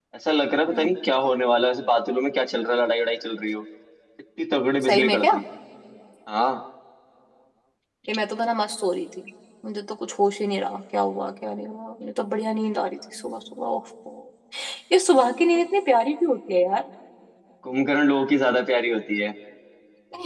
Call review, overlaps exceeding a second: none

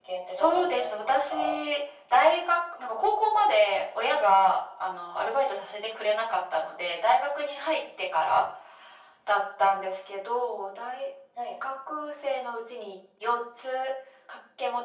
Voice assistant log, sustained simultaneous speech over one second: present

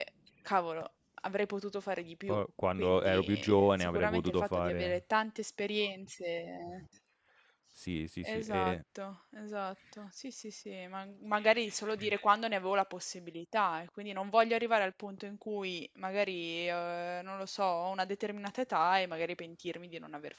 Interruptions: present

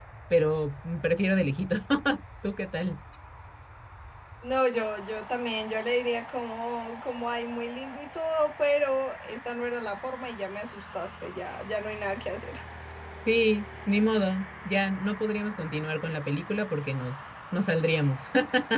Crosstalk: none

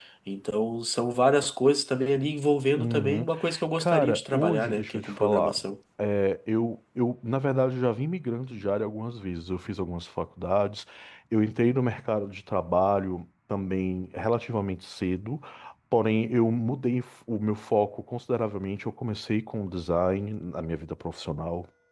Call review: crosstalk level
present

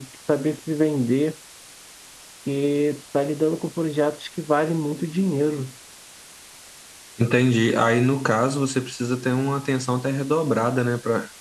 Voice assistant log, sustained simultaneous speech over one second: none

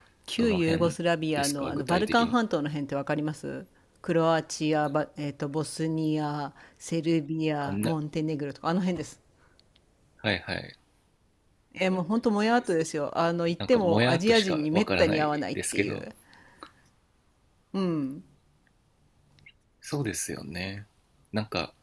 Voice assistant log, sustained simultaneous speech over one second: present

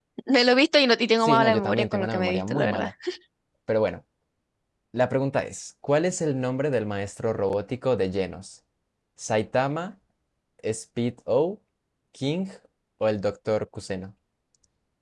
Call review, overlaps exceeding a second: present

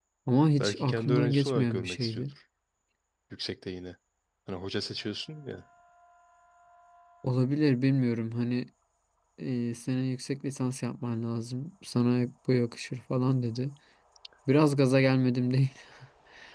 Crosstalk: present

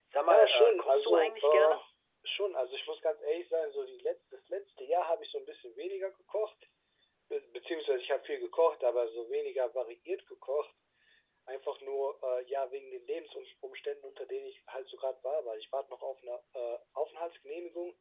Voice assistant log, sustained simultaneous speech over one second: present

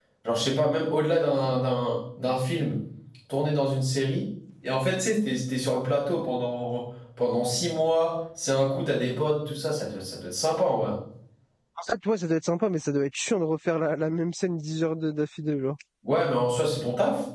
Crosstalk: none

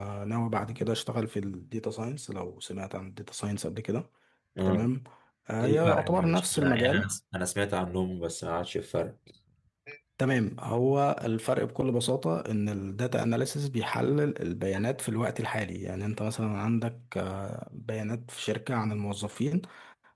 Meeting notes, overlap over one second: present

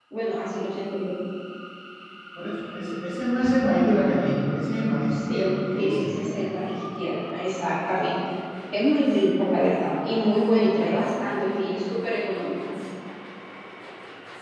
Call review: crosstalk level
present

